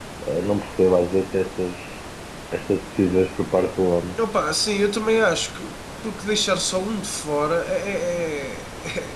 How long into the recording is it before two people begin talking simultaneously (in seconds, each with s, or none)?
none